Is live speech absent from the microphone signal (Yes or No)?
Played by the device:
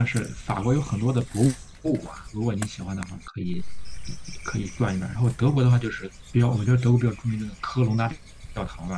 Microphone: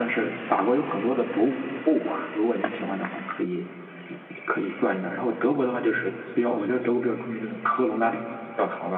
Yes